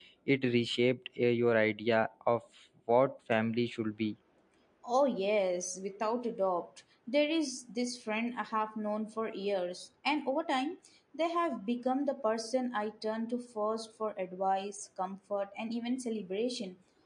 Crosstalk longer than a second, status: none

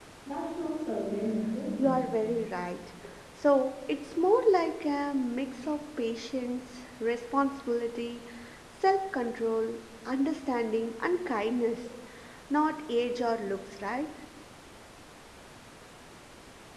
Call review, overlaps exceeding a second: none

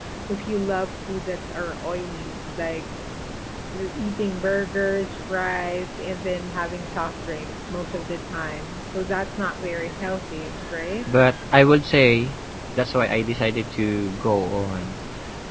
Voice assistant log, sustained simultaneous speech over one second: none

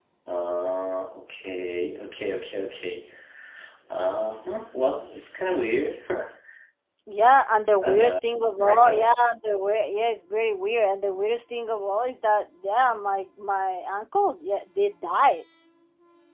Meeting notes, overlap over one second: none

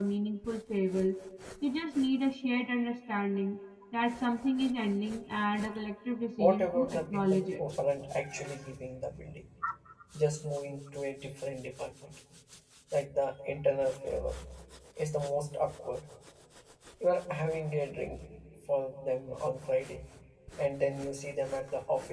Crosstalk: present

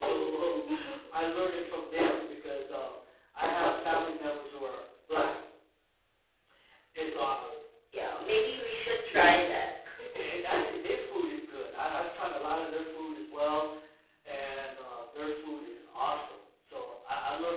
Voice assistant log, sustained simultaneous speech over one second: none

